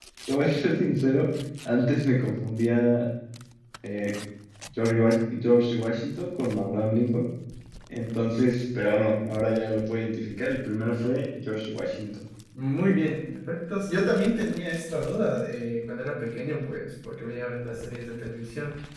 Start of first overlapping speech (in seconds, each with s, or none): none